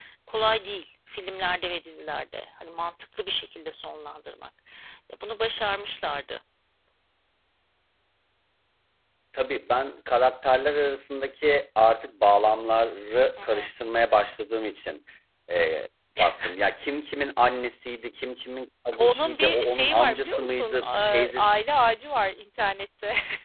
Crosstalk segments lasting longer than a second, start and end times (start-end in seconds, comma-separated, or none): 19.0-21.5